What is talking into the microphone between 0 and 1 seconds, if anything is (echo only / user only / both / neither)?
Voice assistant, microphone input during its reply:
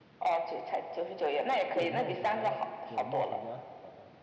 echo only